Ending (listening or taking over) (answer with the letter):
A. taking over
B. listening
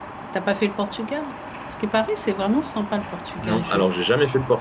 A